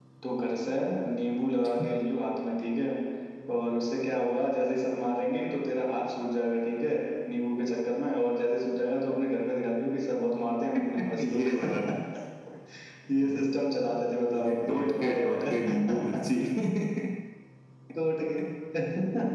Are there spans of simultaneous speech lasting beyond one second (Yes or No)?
Yes